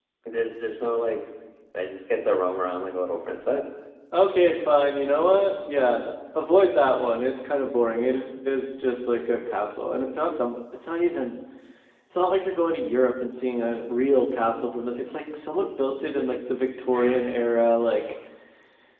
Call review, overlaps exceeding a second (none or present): none